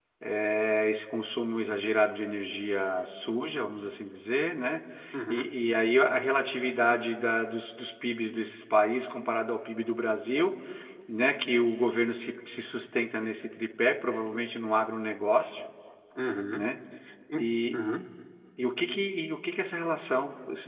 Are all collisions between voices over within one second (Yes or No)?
Yes